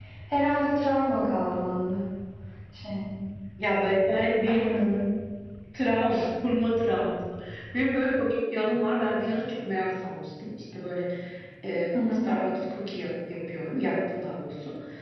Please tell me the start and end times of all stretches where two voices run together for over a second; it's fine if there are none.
none

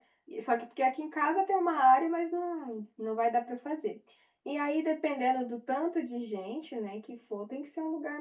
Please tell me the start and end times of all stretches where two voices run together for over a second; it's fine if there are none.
none

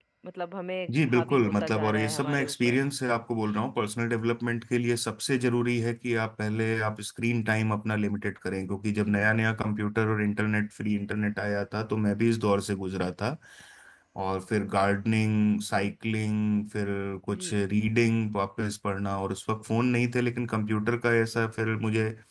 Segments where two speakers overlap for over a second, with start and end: 0.9-2.8

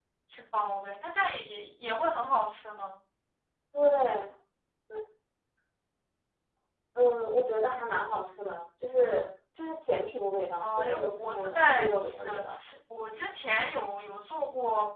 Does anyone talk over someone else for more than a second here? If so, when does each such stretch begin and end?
10.6-12.4

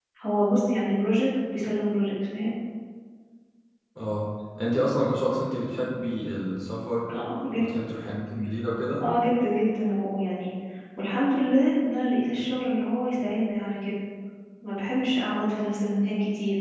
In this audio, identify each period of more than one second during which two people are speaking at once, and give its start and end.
none

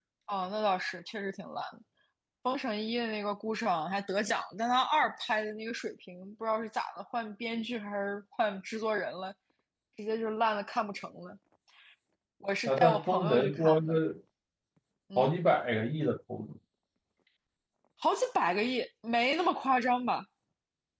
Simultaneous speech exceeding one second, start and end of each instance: 12.7-14.0

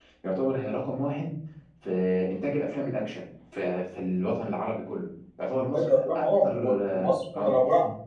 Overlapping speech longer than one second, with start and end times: 5.5-7.5

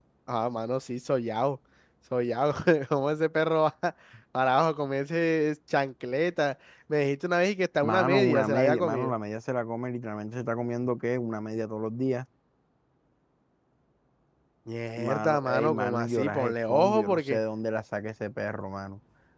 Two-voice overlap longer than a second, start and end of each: 7.8-9.1, 15.0-17.4

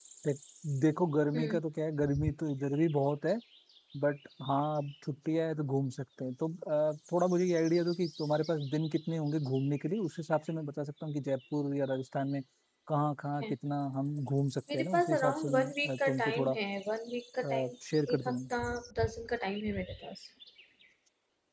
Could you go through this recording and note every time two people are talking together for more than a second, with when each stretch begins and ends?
14.7-16.6

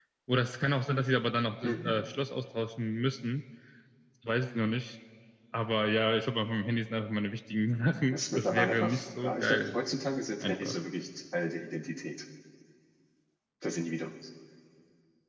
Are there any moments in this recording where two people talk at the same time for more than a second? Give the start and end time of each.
8.1-9.8

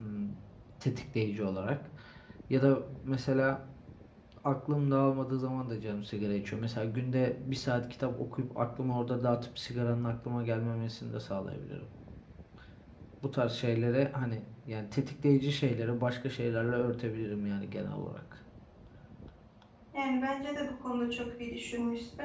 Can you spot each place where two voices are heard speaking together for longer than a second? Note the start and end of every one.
none

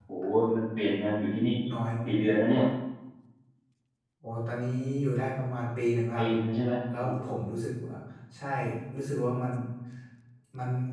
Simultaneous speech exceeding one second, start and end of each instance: none

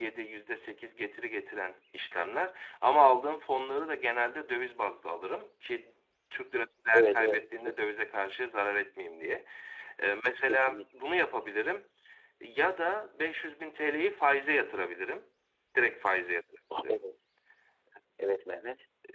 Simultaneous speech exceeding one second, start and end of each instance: none

